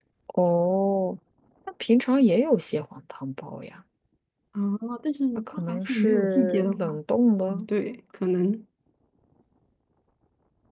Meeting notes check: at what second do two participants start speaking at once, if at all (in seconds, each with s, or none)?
5.6 s